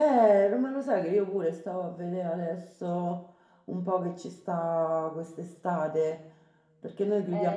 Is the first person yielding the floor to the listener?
Yes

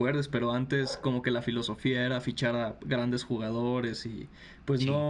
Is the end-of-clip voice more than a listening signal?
No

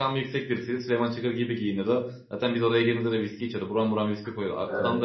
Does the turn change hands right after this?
No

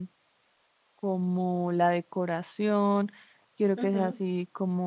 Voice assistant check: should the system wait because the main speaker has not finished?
Yes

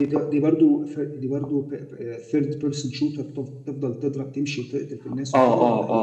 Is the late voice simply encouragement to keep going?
No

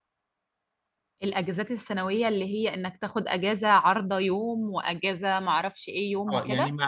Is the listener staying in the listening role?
No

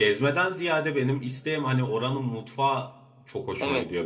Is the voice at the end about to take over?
Yes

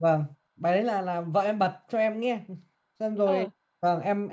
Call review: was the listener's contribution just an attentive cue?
Yes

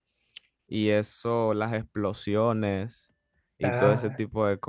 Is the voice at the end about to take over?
No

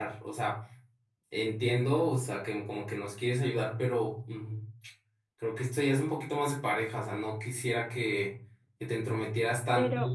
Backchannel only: No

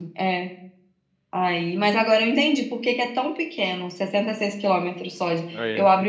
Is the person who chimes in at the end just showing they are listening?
Yes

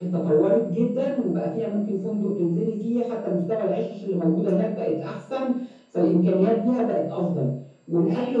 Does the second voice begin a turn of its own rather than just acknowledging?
No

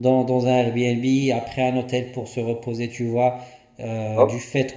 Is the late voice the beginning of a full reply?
No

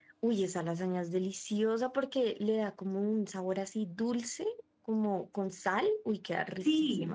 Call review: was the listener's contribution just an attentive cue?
No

